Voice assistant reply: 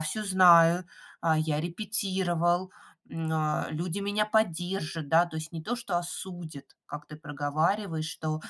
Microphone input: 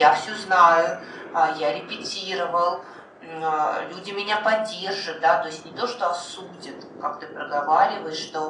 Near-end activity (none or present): none